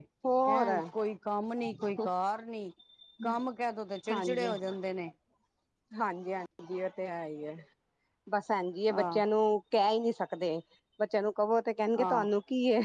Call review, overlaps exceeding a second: none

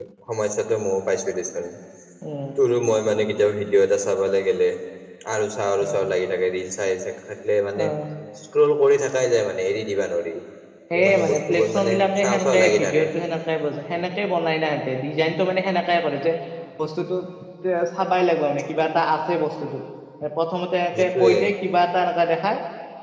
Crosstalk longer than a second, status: present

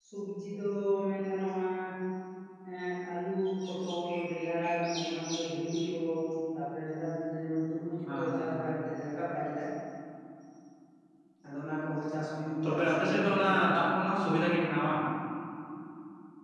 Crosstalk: present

